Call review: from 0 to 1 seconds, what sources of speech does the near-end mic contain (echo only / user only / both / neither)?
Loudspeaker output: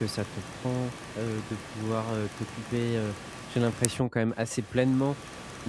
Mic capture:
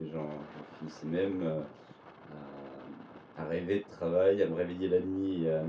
user only